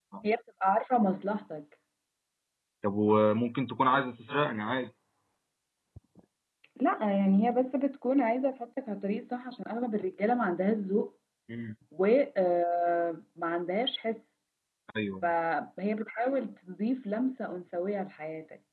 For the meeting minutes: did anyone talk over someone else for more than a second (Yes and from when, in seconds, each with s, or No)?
No